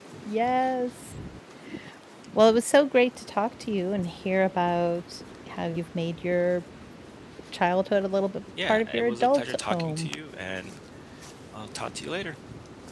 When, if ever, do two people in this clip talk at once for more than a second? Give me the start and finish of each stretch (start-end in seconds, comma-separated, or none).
8.6-10.1